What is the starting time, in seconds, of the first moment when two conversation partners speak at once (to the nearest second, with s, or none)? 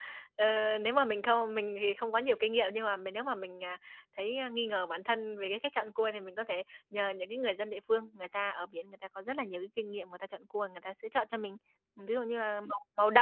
none